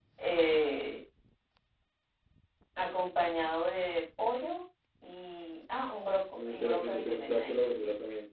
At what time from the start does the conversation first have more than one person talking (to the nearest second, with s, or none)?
6 s